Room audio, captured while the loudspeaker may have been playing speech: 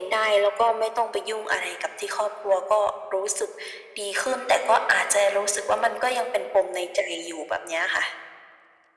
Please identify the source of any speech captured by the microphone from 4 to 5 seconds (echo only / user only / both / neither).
echo only